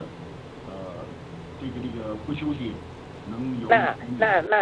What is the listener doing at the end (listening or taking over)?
taking over